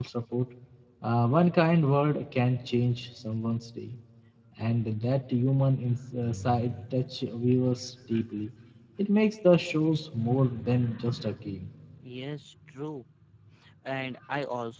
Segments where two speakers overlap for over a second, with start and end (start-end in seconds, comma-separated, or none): none